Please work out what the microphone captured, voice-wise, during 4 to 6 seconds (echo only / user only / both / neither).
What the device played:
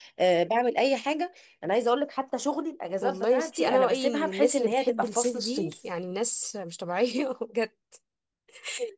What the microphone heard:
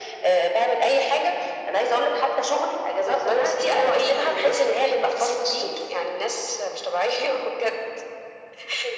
echo only